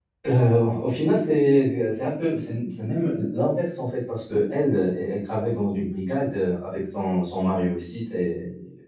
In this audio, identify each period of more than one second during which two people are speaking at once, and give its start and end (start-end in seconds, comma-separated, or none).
none